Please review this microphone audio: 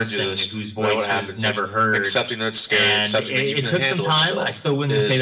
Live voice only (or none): none